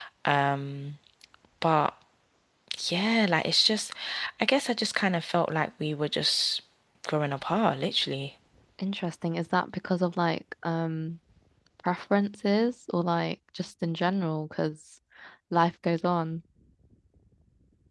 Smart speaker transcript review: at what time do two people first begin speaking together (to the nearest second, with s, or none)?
none